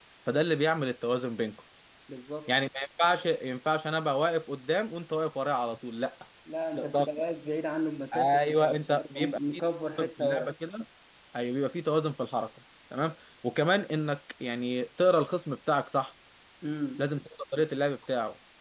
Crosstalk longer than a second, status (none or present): present